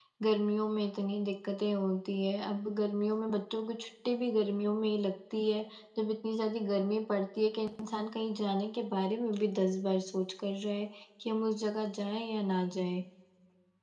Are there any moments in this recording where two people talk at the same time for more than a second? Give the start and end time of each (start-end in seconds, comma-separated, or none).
none